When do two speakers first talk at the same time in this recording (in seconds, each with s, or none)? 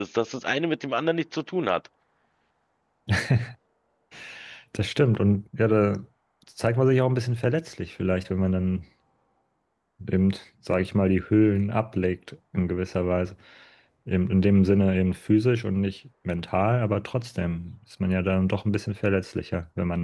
none